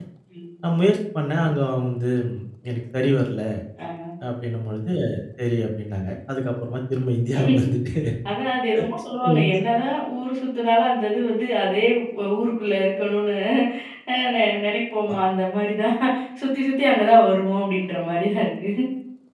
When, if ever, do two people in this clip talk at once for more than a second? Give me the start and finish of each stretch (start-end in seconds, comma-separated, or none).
none